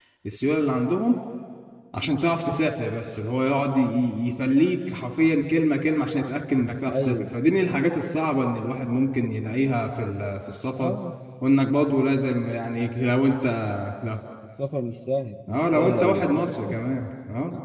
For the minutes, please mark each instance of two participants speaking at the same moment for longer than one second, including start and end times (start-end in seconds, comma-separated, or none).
15.5-16.7